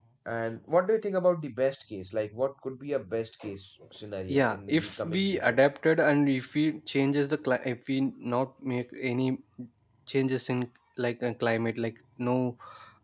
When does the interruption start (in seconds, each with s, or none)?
4.3 s